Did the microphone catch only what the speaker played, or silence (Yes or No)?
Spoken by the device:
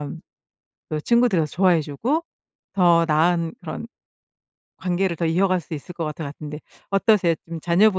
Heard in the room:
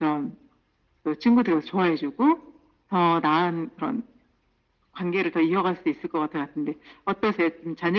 Yes